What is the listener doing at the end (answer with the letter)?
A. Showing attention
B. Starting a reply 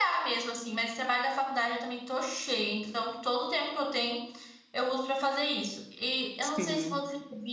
A